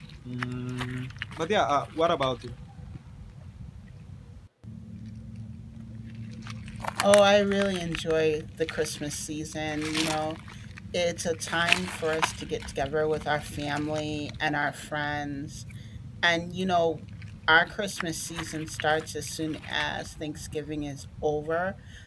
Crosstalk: none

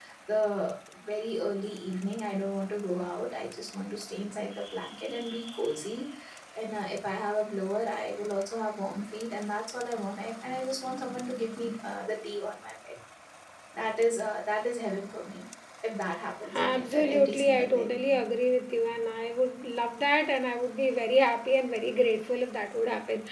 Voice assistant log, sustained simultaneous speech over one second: present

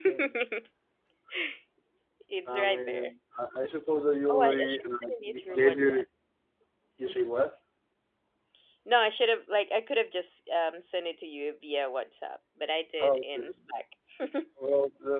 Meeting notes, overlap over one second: present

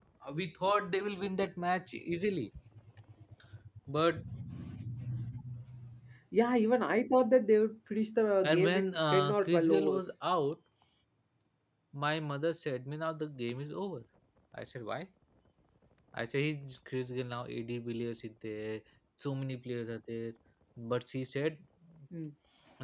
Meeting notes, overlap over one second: present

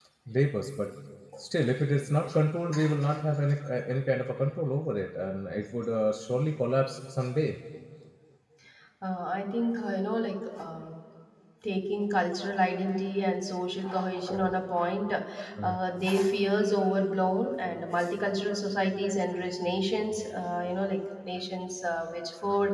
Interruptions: none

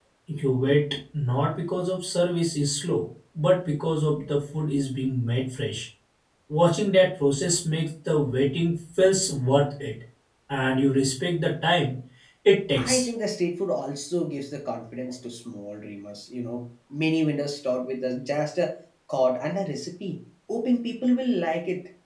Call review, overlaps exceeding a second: none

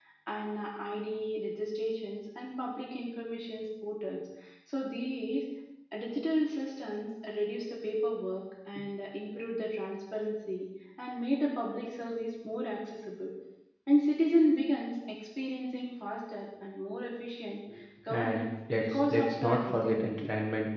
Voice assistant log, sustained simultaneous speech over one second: present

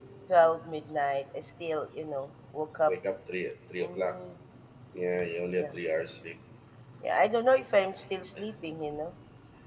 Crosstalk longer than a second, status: none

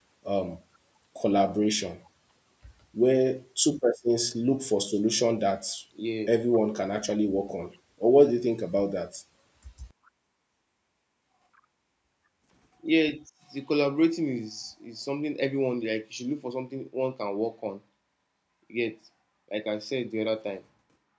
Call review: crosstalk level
none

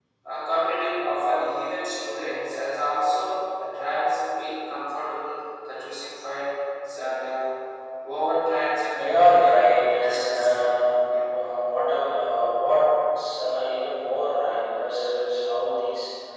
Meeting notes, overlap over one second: present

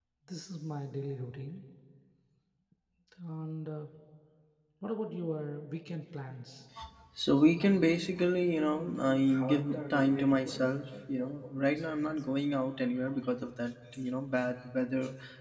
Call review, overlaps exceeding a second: none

